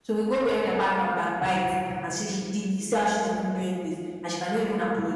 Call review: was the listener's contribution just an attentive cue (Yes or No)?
Yes